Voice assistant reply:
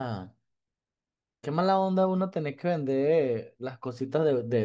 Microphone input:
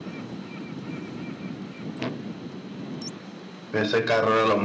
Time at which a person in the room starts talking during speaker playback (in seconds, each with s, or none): 3.7 s